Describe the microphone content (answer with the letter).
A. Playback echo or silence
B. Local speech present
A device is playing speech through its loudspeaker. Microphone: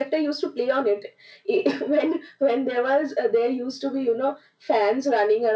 A